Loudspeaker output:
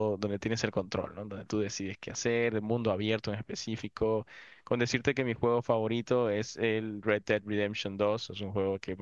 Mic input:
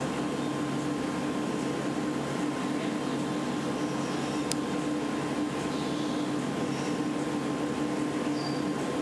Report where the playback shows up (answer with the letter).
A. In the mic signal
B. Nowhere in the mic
B